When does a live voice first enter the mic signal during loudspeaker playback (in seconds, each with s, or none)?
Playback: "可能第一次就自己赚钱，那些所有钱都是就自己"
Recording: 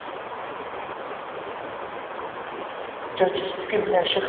3.1 s